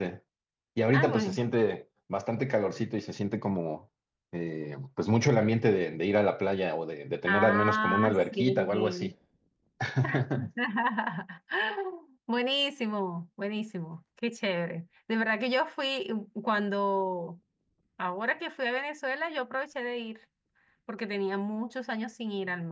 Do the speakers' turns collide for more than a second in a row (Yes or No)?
Yes